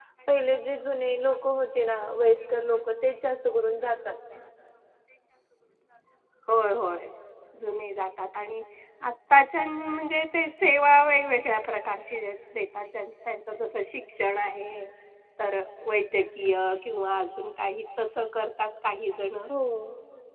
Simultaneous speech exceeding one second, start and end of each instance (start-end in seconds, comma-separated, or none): none